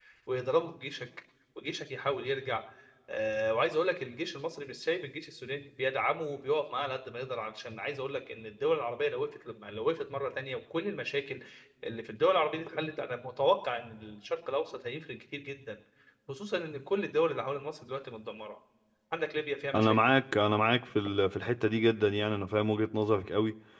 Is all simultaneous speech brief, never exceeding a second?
Yes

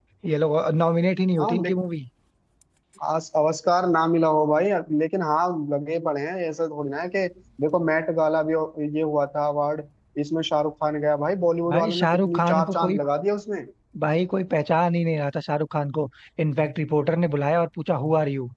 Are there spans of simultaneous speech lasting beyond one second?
Yes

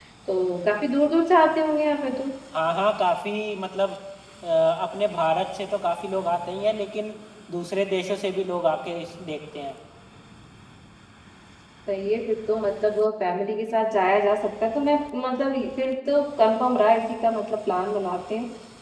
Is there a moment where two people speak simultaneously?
No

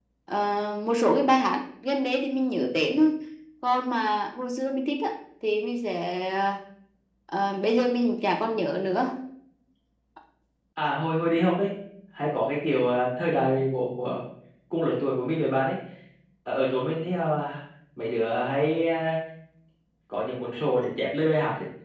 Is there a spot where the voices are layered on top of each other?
No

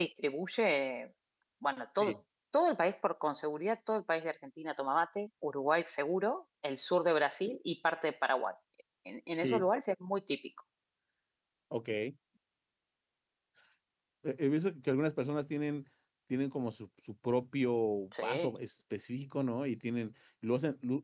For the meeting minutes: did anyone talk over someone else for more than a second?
No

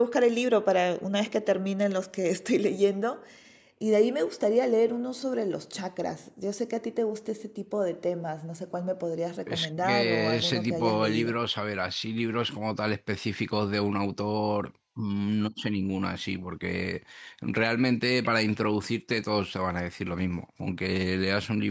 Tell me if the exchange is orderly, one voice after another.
No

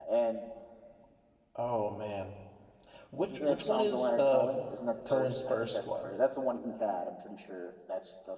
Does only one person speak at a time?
No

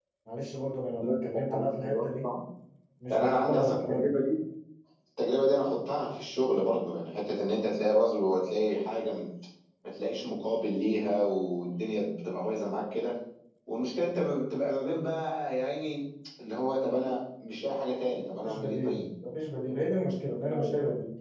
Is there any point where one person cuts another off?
Yes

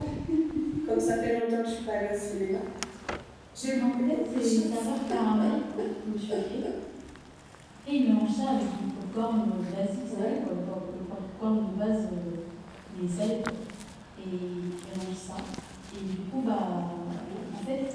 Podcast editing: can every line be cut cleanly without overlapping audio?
No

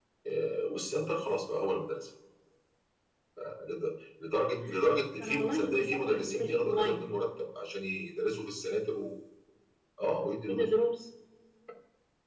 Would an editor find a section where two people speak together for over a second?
Yes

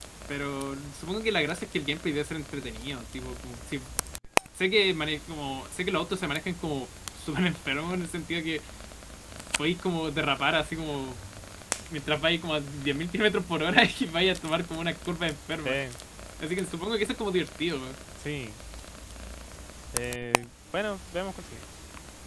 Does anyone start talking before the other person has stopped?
No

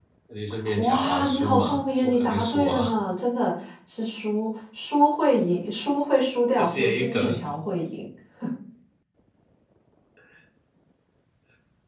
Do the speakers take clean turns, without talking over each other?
No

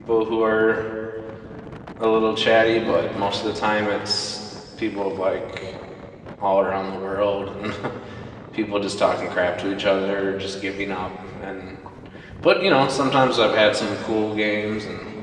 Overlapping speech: No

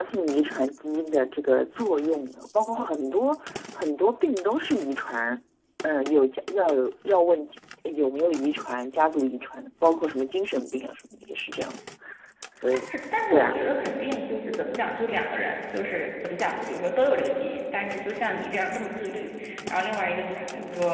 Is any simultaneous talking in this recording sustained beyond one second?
No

